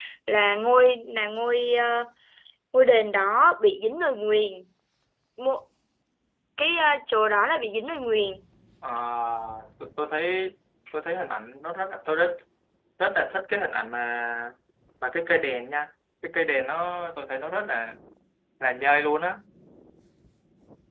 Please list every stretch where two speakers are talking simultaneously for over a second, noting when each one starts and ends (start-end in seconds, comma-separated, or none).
none